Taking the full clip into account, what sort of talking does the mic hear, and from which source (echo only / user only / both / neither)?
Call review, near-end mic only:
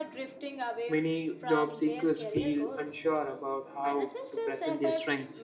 both